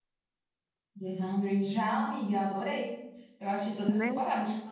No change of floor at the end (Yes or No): Yes